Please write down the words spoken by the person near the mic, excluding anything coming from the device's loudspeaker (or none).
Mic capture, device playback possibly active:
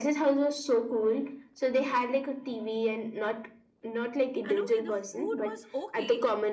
And okay, the food was okay